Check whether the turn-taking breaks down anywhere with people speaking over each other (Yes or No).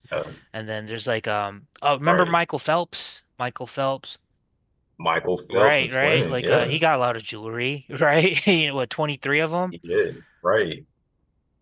Yes